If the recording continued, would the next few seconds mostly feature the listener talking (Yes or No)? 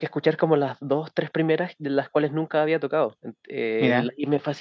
No